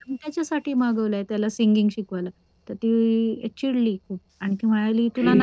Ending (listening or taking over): listening